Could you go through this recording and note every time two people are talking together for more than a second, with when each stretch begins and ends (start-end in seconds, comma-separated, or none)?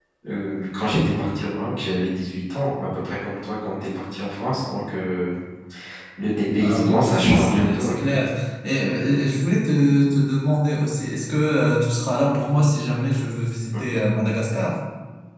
6.6-7.9